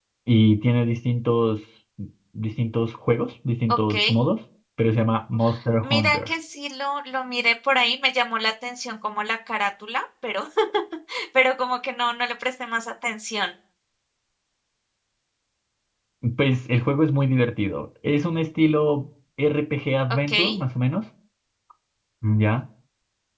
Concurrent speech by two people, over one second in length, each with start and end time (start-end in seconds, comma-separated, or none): none